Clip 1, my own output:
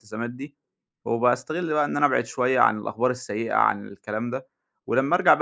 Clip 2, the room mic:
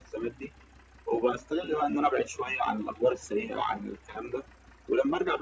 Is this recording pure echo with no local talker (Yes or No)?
Yes